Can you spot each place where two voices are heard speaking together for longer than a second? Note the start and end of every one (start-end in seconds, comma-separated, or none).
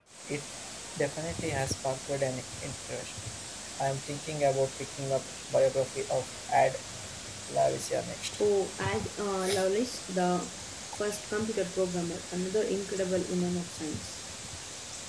none